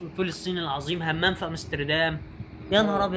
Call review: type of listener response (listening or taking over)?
taking over